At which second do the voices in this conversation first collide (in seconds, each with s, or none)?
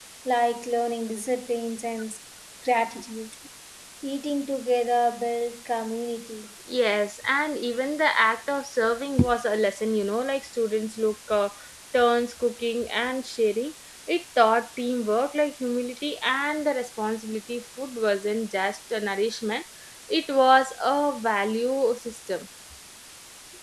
none